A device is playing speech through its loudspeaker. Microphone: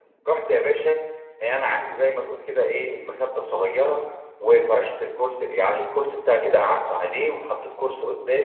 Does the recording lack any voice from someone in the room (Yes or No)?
Yes